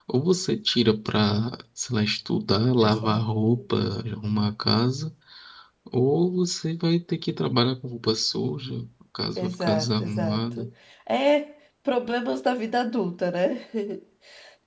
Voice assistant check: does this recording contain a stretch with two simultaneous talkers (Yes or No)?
Yes